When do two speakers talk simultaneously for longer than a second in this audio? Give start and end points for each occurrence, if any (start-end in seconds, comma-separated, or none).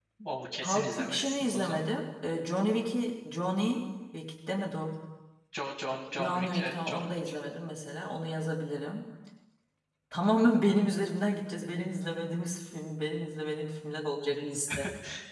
0.6-1.8, 6.1-7.3